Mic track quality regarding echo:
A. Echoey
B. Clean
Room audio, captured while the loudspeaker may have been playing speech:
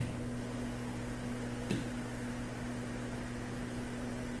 B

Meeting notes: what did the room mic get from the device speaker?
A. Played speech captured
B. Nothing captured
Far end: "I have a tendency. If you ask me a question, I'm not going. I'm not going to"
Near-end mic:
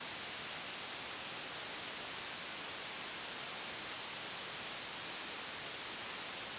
B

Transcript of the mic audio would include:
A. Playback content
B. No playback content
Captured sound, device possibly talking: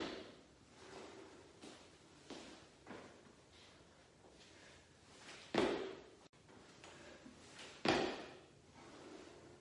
B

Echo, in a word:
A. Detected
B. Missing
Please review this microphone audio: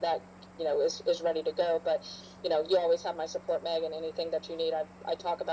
A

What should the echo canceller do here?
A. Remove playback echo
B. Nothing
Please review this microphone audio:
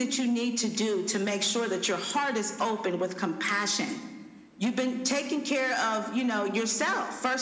A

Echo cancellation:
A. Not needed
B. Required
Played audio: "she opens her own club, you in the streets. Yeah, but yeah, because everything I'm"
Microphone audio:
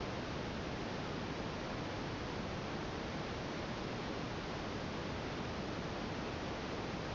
A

